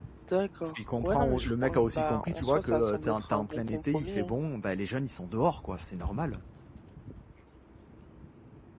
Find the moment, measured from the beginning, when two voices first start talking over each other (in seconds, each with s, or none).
0.6 s